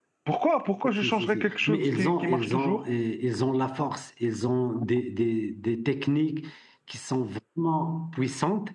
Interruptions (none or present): present